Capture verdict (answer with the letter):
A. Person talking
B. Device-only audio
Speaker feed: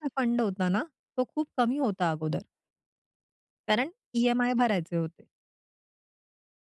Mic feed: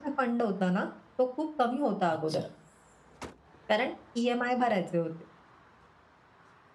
A